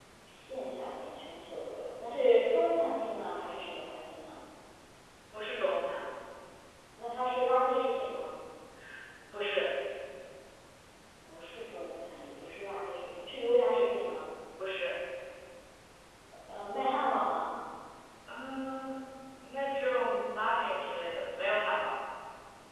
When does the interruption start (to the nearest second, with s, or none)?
none